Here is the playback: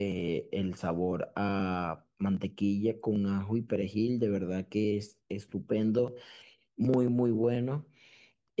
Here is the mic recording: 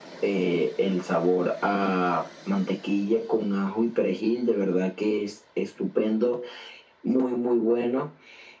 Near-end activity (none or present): none